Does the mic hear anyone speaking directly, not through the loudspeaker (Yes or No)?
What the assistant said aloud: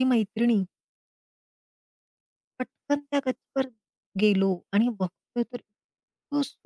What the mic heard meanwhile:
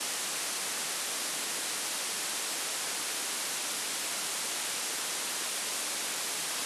No